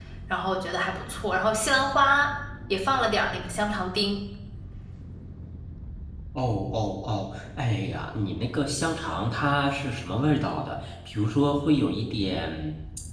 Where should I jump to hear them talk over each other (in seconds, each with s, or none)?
none